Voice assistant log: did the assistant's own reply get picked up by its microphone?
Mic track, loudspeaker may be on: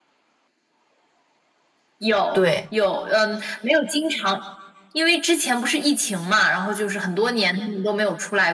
Yes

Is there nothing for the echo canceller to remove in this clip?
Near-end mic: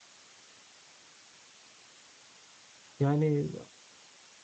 Yes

